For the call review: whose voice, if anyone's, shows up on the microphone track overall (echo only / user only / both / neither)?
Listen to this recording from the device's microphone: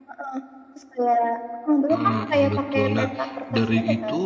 both